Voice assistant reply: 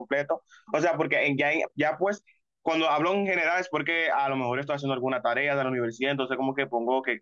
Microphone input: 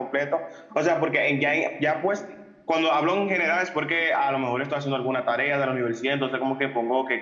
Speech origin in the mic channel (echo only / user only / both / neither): echo only